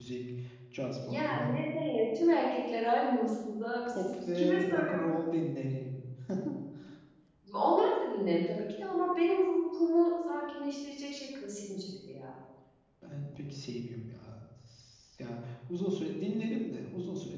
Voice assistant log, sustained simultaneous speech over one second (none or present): present